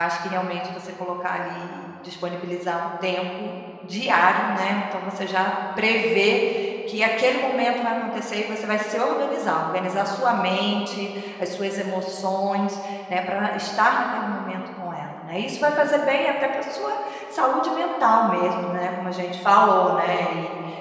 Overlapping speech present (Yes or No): No